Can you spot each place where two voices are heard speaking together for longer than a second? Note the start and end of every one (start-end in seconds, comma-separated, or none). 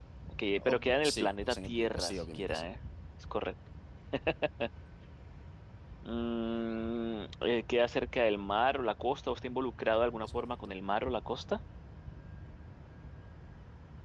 0.6-2.6